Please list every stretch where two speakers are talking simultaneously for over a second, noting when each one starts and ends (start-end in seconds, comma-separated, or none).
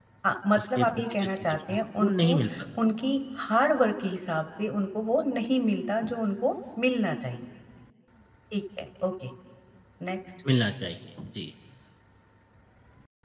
0.6-2.4